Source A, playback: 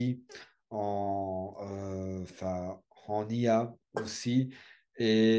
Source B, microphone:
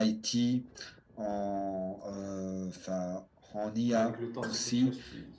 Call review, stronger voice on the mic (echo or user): echo